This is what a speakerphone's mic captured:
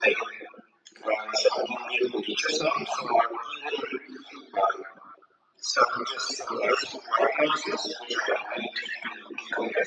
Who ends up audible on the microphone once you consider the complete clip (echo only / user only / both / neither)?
echo only